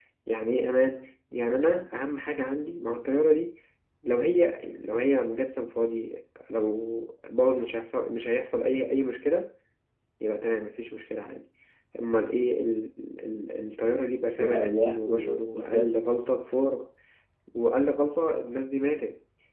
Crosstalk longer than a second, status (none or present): present